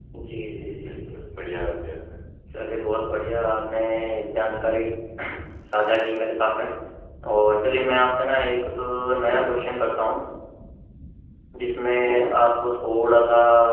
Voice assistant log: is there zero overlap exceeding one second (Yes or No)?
Yes